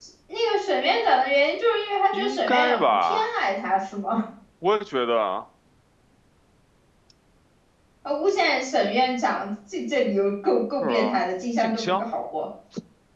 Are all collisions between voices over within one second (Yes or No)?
No